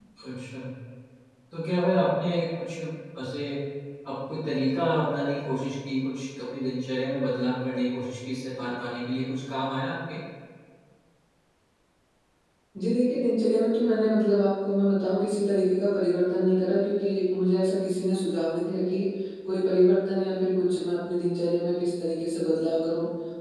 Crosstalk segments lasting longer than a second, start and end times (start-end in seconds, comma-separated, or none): none